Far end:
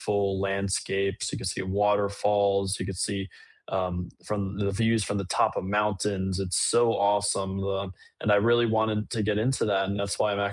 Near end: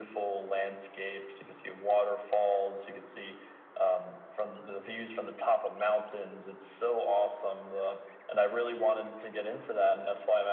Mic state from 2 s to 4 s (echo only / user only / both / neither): echo only